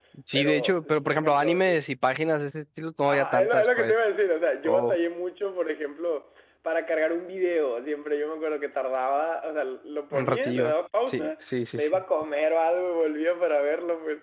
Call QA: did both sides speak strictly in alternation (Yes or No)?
No